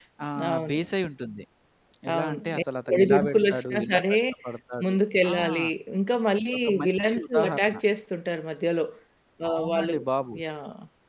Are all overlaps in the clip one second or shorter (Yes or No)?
No